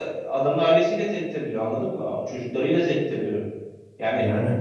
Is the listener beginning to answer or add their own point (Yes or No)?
No